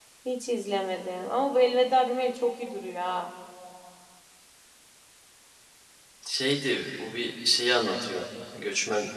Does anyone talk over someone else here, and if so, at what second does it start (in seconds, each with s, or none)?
none